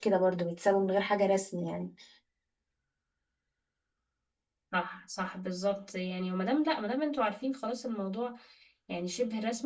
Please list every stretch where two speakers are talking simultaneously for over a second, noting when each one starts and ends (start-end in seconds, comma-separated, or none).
none